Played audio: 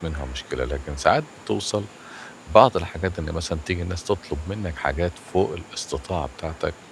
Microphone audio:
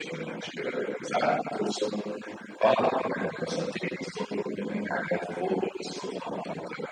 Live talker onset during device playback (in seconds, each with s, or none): none